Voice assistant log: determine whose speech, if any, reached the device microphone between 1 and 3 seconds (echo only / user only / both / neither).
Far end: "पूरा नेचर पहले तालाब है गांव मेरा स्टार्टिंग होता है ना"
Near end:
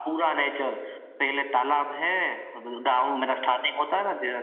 echo only